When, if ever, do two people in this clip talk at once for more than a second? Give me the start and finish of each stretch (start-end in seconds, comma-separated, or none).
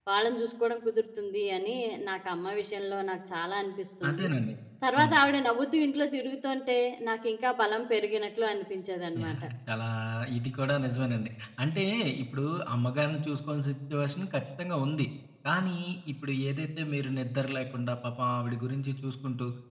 none